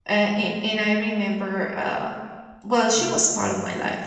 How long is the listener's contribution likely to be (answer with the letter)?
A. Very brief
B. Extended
A